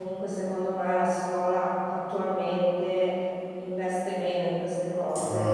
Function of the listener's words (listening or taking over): listening